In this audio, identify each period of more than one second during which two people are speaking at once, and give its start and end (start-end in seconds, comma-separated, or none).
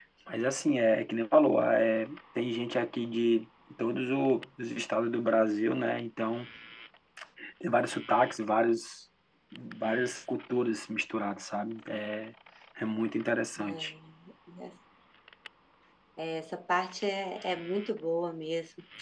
none